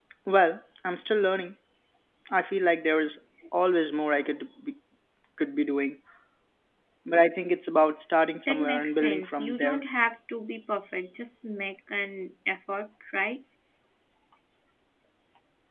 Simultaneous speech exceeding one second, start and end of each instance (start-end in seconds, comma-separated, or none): 8.5-9.8